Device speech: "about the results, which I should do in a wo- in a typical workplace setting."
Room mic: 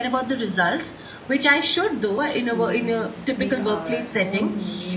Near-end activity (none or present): present